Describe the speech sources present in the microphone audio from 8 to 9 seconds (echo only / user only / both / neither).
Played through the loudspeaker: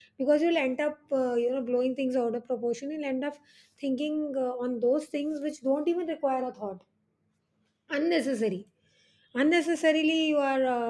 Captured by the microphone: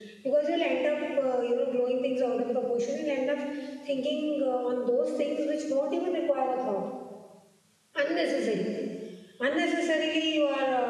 echo only